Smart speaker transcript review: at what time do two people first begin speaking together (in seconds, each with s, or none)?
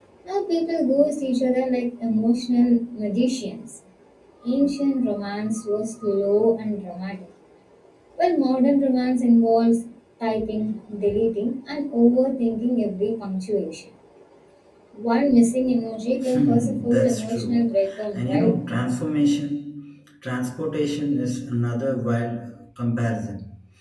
16.2 s